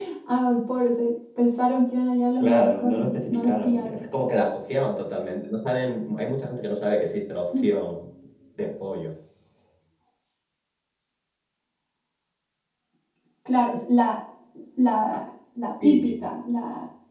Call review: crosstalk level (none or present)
present